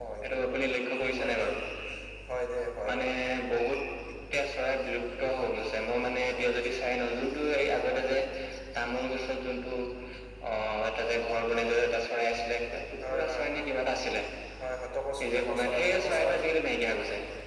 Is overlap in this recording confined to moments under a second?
No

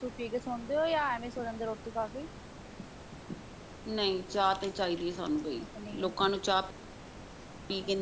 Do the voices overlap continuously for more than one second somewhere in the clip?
No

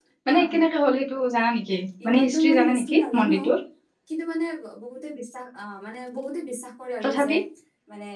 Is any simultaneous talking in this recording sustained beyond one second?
Yes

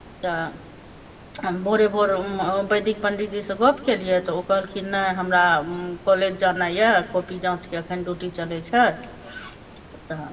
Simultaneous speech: No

